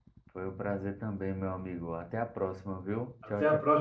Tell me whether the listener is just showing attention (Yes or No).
No